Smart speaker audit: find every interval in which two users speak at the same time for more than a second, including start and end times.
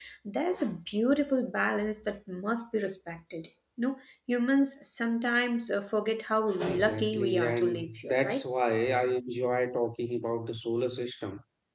6.7-8.4

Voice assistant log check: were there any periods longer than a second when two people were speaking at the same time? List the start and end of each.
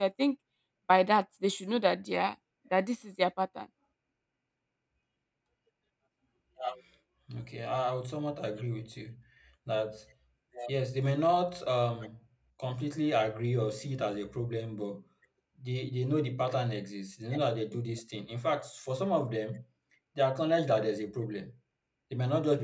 none

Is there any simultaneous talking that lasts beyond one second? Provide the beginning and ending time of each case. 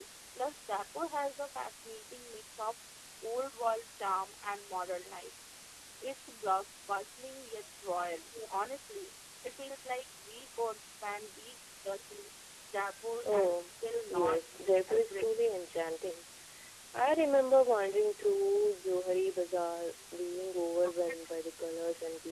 14.1-15.5

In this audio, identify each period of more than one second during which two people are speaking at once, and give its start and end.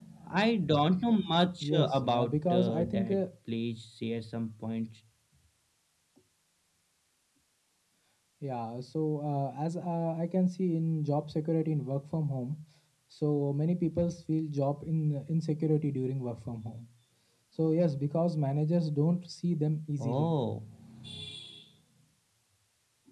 1.6-3.2

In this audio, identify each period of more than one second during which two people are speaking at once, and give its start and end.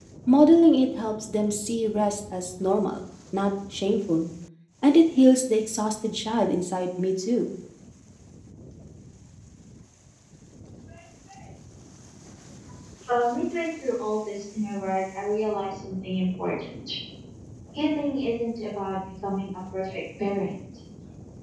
none

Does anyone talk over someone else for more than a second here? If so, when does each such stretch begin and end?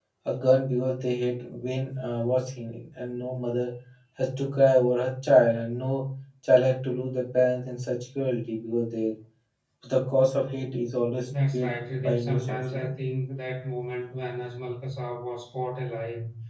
11.5-12.9

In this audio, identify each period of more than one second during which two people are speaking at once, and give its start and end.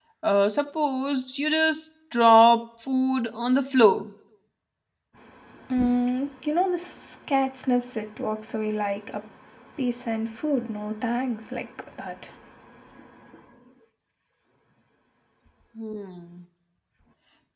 none

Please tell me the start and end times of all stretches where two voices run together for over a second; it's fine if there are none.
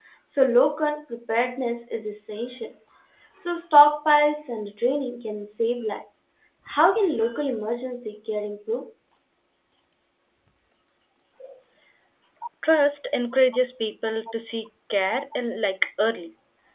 none

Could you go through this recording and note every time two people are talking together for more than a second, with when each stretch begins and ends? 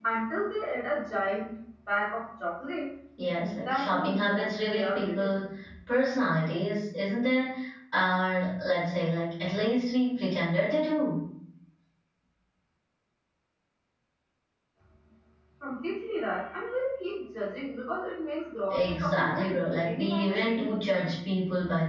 3.4-5.4, 18.7-21.1

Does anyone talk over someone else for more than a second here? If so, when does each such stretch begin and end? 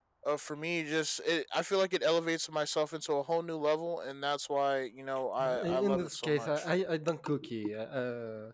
5.4-6.7

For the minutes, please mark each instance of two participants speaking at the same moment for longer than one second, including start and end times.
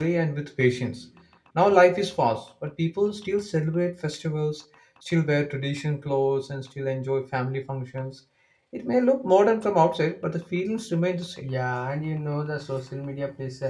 none

